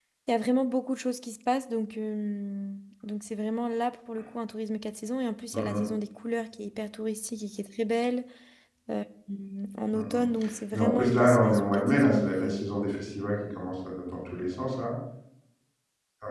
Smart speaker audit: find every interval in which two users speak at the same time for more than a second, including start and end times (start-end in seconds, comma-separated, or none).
10.7-12.7